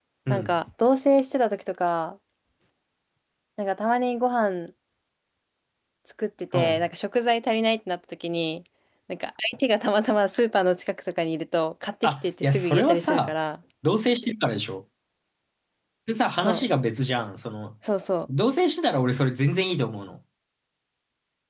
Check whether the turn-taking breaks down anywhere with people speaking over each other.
Yes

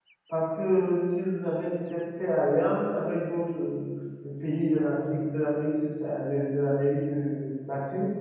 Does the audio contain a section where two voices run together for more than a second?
No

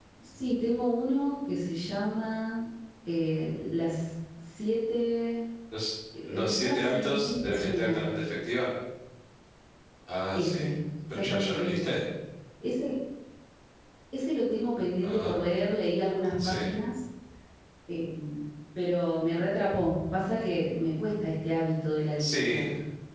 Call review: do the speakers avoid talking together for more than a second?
No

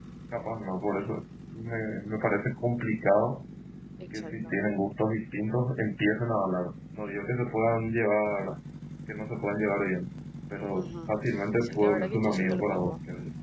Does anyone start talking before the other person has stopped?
Yes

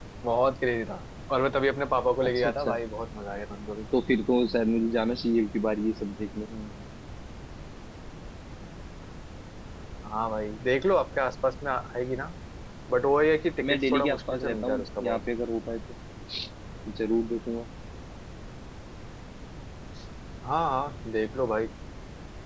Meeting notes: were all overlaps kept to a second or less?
No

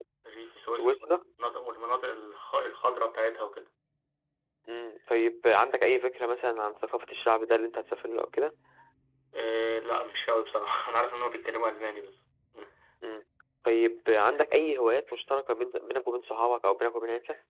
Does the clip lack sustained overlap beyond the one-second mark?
Yes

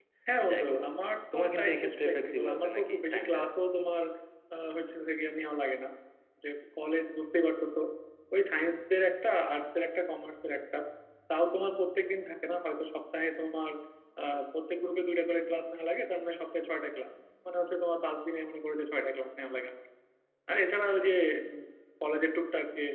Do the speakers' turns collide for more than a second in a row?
Yes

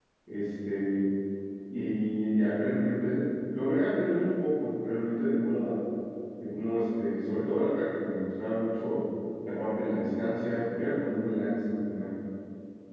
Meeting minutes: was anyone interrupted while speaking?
No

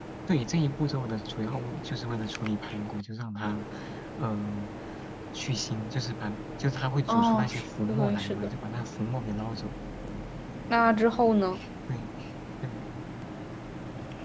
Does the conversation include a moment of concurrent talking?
Yes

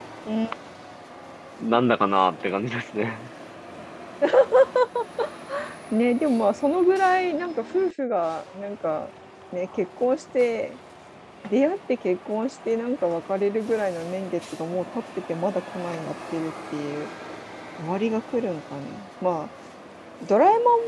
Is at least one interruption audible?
No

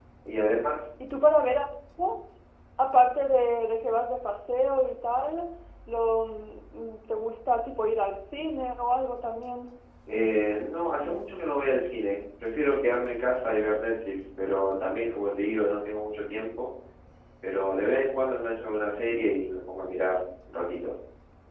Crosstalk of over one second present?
No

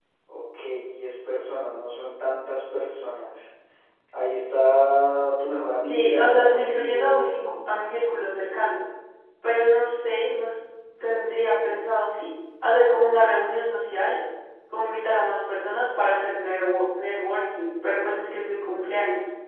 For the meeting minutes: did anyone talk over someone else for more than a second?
Yes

